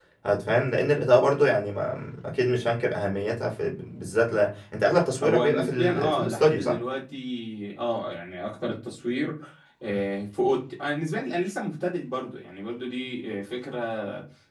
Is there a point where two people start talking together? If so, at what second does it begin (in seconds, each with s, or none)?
5.2 s